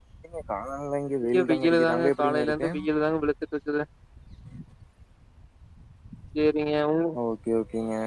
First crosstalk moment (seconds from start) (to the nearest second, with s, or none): 1 s